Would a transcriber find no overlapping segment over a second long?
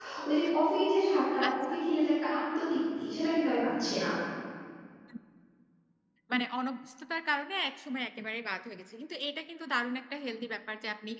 Yes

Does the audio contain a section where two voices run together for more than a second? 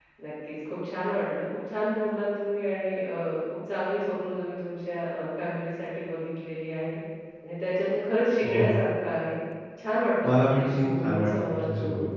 Yes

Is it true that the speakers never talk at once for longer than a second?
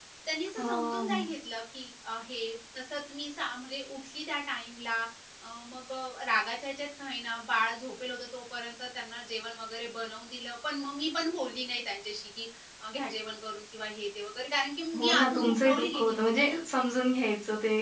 No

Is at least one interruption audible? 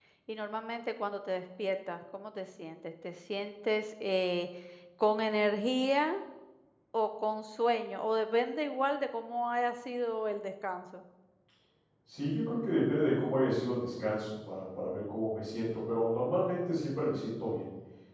No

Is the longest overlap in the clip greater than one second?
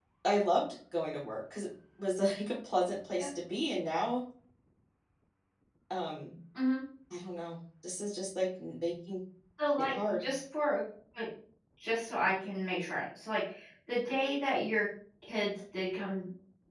No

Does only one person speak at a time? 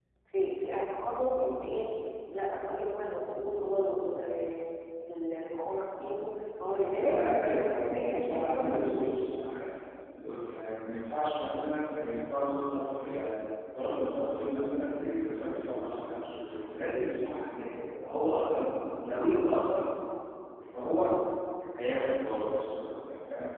No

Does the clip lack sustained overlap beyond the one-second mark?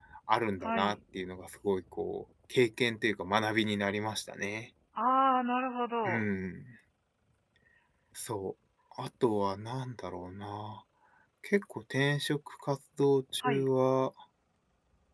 Yes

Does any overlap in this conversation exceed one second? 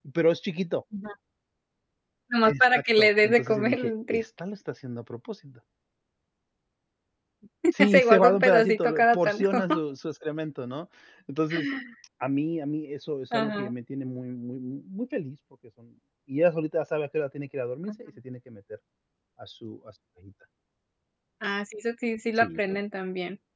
Yes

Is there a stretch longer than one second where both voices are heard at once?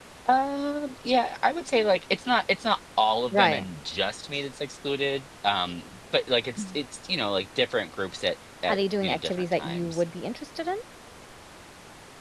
Yes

